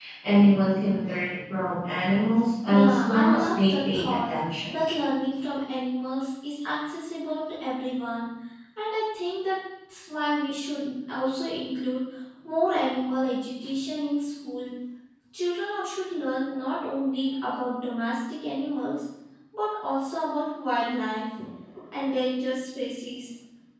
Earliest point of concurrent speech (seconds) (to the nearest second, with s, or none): 3 s